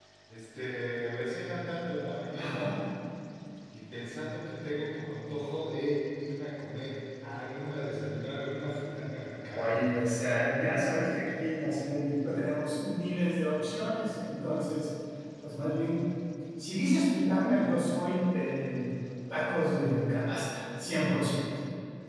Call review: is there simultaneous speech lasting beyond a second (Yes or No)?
No